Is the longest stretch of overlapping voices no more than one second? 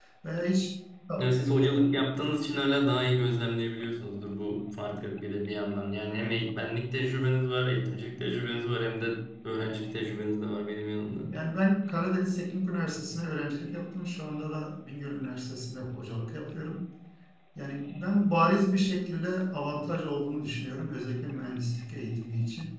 Yes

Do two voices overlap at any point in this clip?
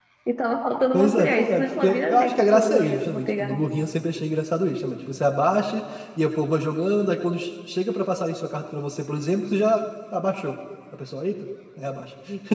Yes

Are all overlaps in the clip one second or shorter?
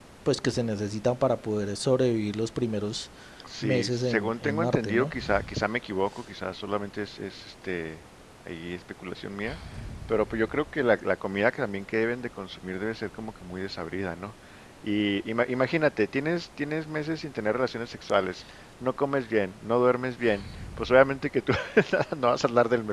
No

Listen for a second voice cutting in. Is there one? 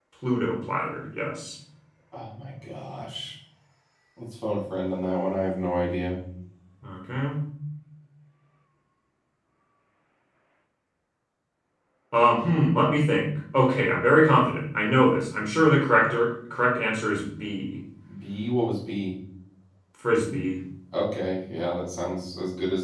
No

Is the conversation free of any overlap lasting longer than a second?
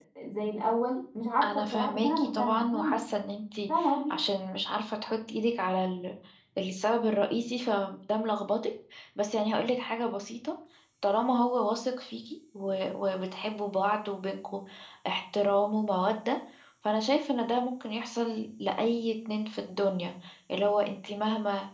No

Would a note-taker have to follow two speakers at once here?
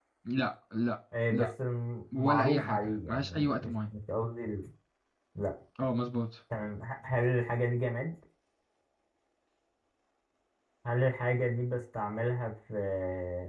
Yes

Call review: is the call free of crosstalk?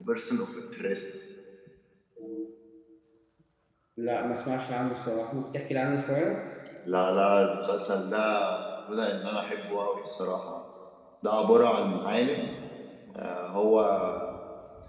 Yes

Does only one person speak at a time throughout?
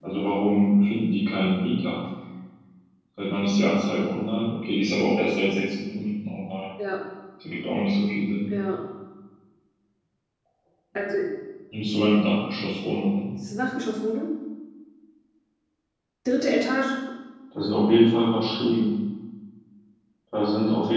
Yes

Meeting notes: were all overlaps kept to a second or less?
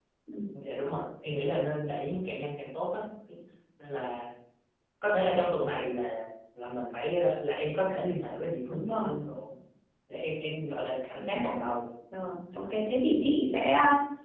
Yes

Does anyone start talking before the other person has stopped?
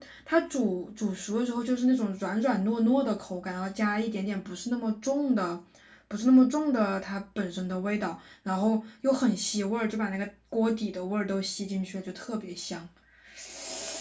No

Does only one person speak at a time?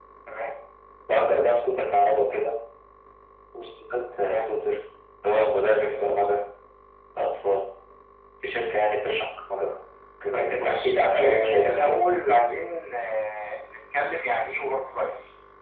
No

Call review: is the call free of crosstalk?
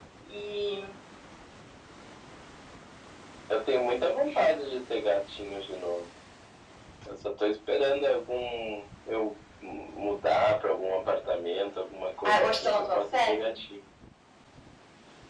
No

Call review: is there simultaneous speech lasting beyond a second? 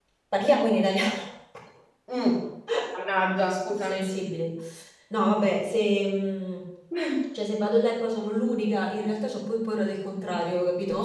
No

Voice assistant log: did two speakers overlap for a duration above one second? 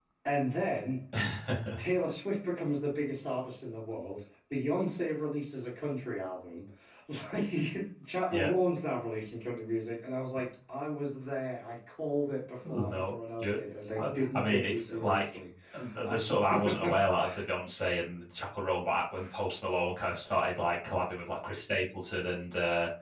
Yes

